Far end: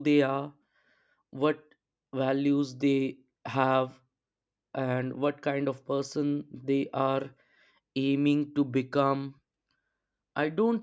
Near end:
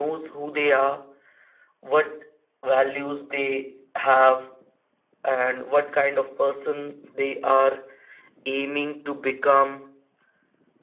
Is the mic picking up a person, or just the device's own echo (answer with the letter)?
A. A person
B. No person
B